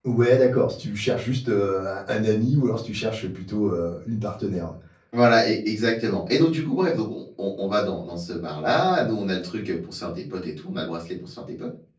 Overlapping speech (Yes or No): No